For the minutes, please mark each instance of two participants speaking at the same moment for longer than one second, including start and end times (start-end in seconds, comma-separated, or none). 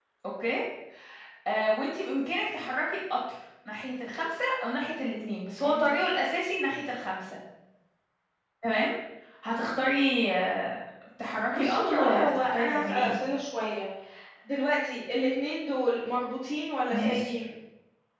11.5-13.2